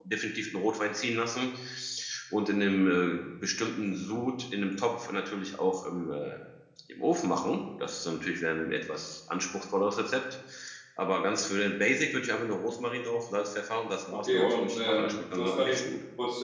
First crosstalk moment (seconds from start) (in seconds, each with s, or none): 14.1 s